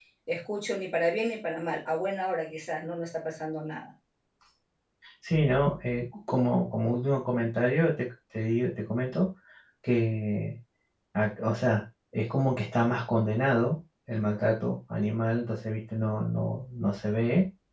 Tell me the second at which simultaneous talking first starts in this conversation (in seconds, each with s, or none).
none